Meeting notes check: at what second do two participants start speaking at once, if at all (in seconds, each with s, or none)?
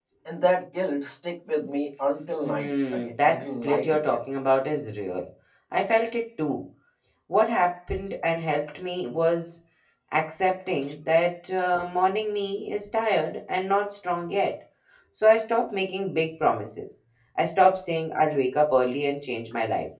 2.4 s